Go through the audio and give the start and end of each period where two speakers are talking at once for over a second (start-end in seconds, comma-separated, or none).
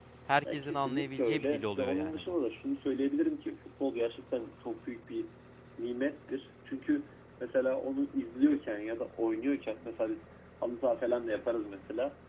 0.5-2.4